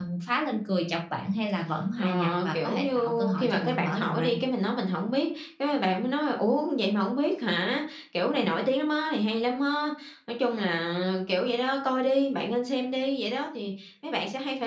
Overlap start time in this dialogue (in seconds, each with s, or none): 2.0 s